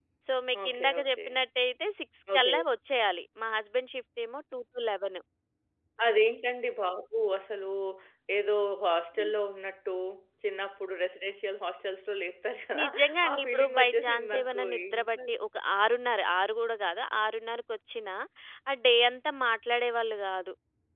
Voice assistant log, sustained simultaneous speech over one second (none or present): present